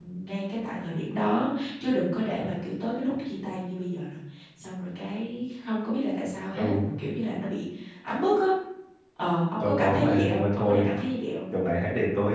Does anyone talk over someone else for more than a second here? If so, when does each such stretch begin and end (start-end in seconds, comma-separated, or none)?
9.6-10.9